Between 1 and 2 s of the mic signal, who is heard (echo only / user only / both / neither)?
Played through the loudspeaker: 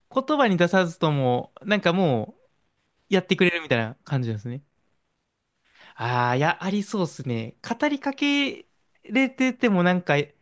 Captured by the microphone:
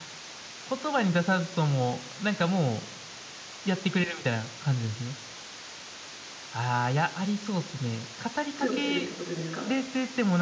echo only